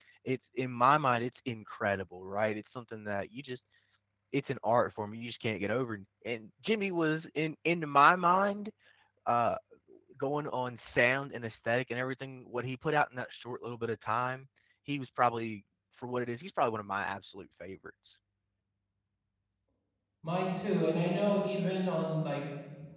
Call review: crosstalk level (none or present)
none